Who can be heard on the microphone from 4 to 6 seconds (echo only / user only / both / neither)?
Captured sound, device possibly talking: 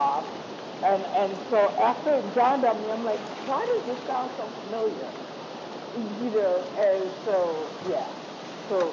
echo only